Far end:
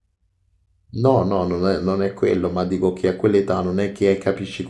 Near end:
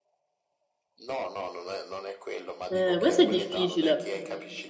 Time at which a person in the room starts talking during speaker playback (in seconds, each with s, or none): 2.7 s